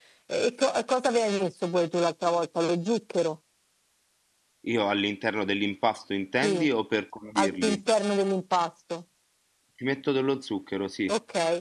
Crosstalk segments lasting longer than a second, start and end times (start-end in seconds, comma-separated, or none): none